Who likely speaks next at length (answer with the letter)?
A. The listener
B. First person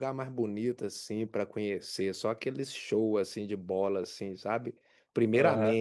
B